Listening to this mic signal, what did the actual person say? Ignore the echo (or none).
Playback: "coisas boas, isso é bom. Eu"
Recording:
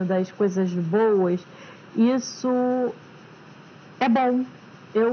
none